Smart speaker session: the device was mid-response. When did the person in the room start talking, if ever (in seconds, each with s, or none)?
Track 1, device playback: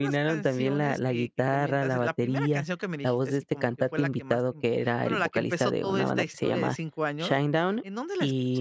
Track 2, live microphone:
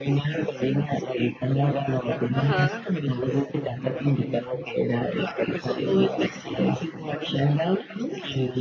2.3 s